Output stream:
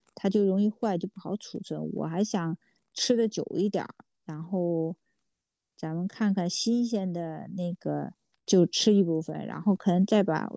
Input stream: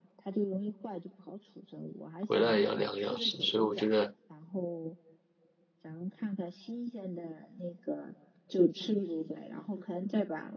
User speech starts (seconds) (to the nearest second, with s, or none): 2 s